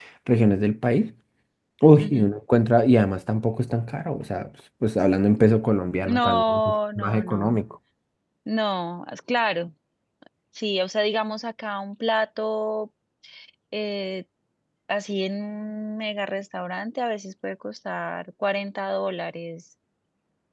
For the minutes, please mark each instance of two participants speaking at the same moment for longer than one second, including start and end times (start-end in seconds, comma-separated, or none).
6.0-7.6